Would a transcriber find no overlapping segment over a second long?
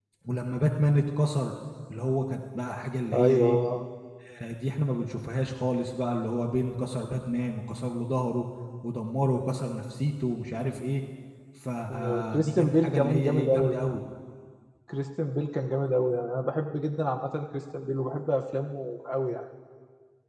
No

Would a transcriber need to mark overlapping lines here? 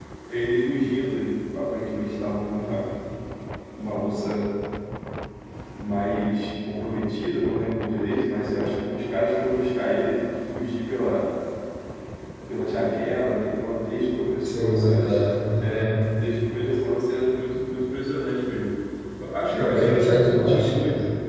Yes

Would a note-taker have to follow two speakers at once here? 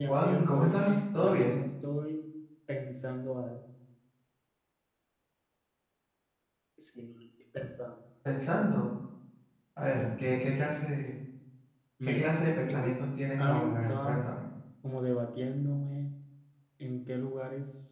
Yes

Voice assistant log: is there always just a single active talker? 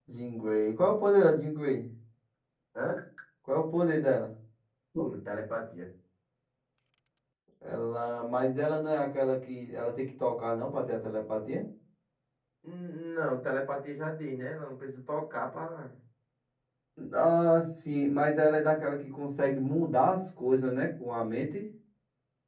Yes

